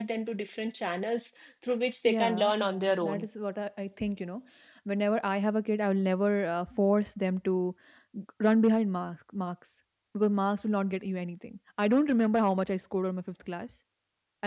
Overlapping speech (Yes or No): Yes